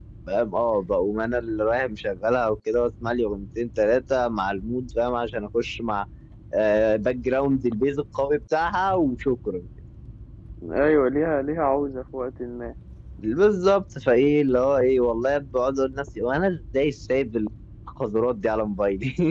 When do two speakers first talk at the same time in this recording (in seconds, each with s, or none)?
none